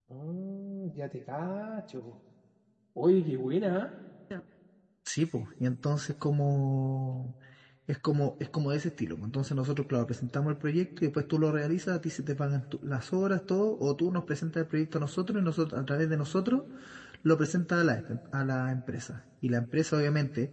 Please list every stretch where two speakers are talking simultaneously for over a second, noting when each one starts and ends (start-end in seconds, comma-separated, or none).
none